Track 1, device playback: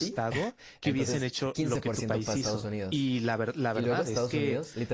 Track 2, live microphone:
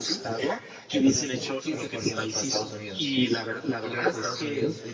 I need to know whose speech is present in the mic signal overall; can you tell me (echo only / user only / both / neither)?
echo only